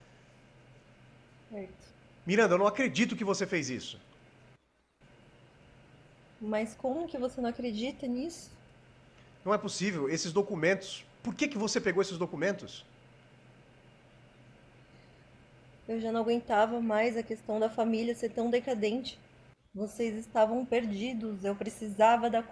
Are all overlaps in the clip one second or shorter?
Yes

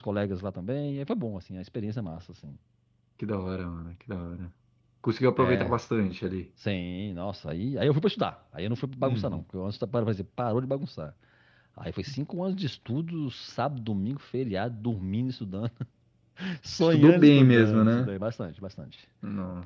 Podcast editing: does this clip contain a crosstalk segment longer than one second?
Yes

